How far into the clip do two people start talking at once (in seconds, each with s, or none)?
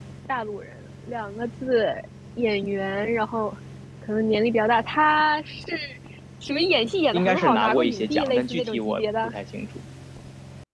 7.1 s